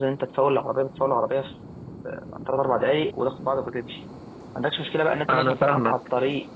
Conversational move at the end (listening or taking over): listening